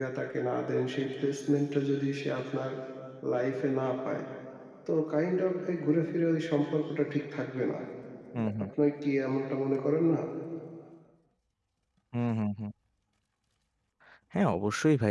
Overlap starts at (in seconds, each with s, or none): none